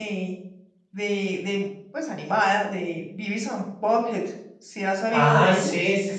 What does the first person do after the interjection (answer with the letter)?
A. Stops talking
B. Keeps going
A